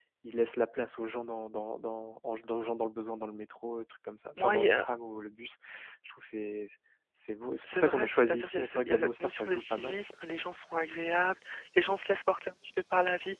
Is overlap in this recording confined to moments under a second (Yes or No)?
No